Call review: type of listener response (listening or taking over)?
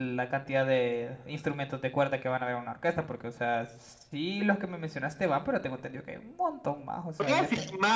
taking over